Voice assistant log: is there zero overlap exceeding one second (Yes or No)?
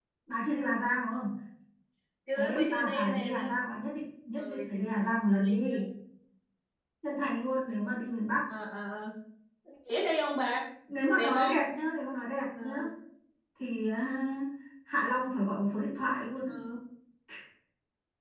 No